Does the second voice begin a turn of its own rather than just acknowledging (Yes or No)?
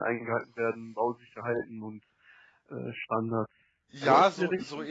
Yes